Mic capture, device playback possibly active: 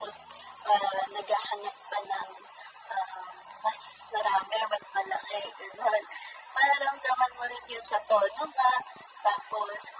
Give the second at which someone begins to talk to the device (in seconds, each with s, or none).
none